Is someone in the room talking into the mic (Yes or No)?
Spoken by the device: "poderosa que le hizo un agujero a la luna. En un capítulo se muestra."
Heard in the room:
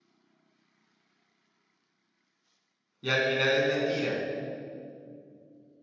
Yes